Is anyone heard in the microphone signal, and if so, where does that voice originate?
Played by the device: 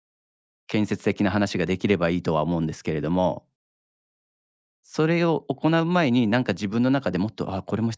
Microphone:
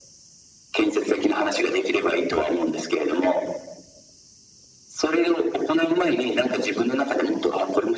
echo only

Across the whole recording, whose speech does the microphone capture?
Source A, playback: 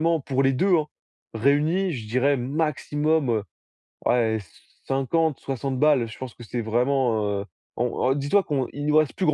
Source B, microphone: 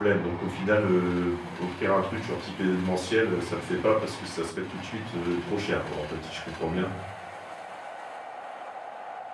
user only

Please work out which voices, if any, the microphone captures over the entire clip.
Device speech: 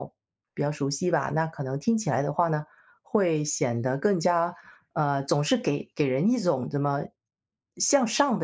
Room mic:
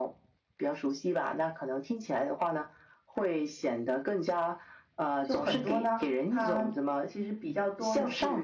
both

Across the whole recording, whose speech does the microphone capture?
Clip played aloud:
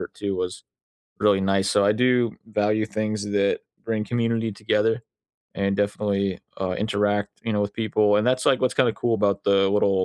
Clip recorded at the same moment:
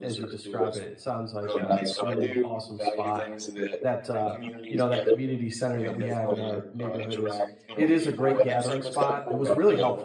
both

